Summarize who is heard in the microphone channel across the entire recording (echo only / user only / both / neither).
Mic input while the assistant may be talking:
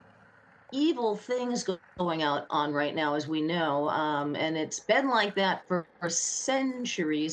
user only